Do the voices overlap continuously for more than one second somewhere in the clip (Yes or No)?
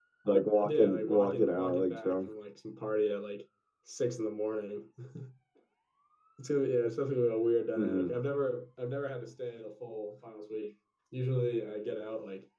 Yes